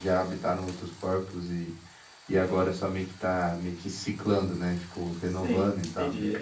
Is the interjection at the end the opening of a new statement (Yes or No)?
Yes